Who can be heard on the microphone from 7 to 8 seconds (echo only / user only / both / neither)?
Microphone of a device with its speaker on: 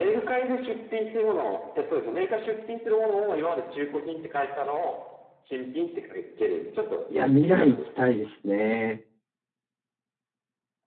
both